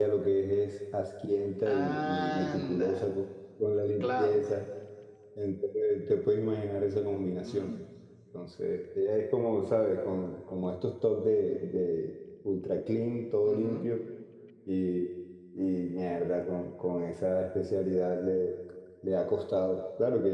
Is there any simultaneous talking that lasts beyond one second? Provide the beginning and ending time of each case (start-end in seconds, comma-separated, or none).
1.6-3.1